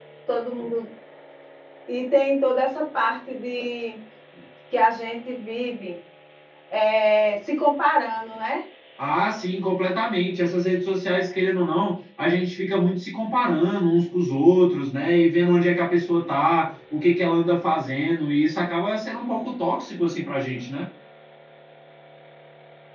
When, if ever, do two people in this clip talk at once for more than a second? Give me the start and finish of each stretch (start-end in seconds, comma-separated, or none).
none